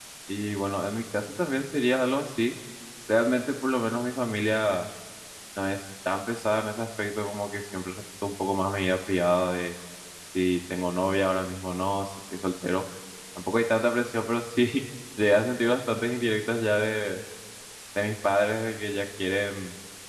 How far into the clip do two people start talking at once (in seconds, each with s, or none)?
none